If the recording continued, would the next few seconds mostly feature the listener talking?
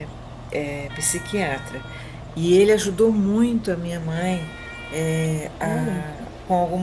No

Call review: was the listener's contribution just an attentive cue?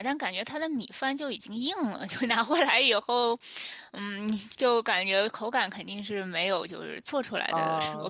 Yes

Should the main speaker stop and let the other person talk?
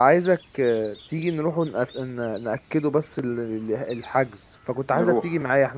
No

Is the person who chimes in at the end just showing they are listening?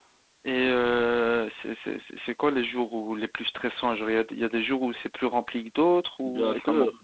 No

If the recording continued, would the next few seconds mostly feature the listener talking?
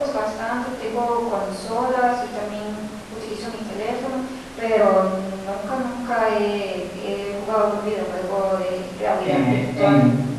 Yes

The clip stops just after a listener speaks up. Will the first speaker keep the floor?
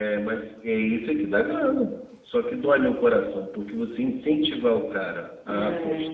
Yes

